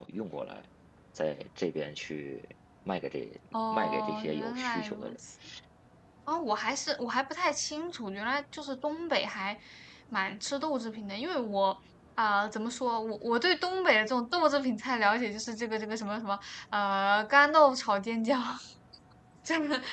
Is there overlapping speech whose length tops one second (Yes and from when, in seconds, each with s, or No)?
Yes, from 3.5 s